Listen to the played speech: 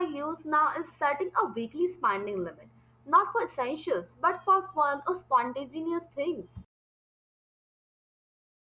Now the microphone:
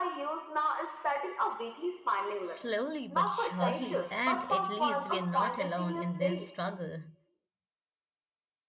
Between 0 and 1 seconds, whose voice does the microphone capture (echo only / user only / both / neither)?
echo only